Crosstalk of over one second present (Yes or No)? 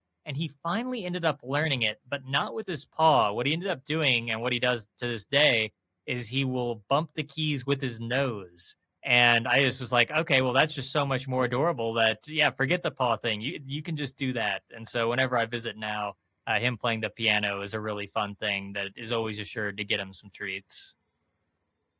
No